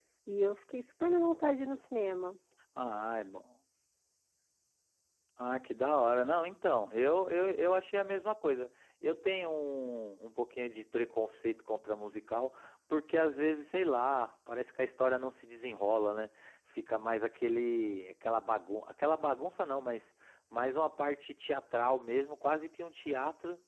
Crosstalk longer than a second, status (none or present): none